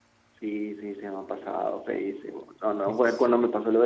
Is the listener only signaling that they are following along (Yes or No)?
Yes